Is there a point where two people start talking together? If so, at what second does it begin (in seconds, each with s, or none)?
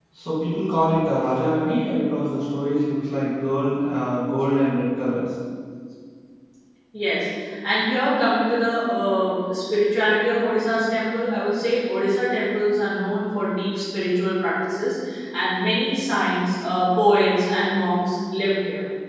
none